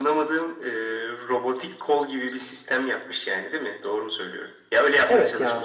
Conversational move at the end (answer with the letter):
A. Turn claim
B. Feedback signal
A